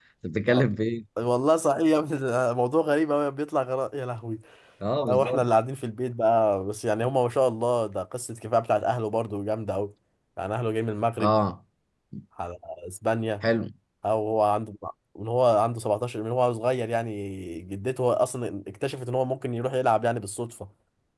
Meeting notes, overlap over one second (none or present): none